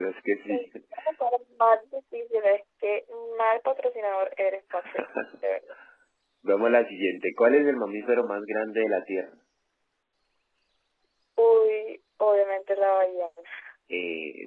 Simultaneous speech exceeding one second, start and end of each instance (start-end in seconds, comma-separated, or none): none